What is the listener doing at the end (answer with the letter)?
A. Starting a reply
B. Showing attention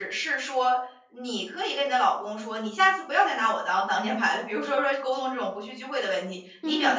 B